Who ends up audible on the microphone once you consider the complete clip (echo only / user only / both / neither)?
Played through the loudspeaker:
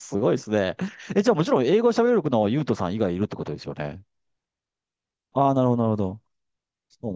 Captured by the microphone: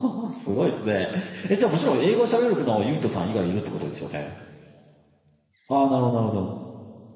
echo only